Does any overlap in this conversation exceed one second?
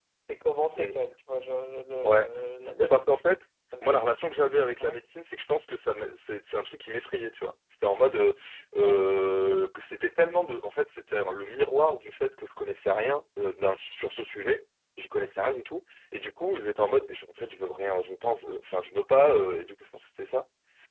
No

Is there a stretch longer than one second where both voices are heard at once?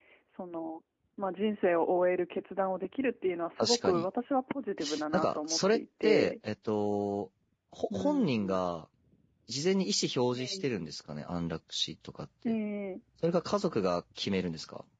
Yes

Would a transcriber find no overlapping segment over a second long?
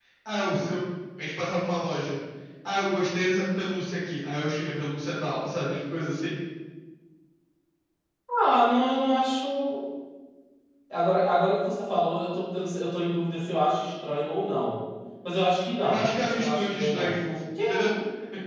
No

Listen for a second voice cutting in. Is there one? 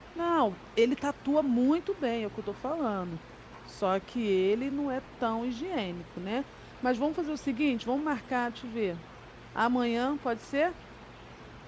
No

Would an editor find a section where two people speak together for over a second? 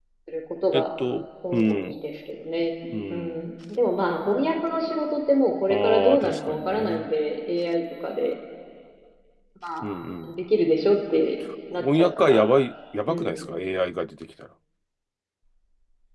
Yes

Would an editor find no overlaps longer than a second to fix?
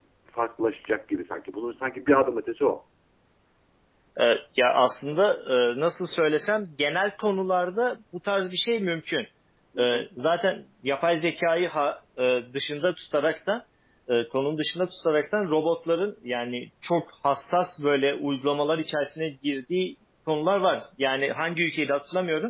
Yes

